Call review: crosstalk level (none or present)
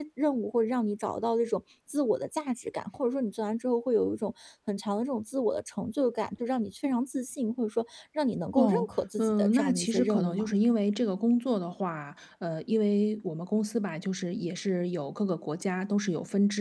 present